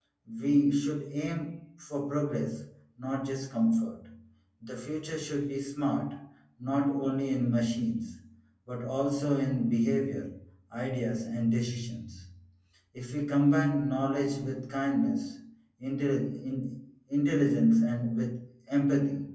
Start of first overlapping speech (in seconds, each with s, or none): none